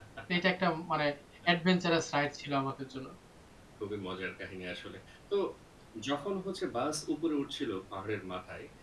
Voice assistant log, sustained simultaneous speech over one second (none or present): none